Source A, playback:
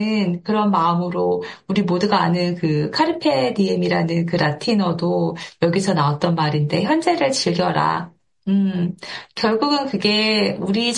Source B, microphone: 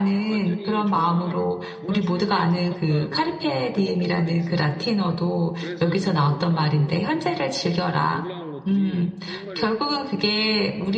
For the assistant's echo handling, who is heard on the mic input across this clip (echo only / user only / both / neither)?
both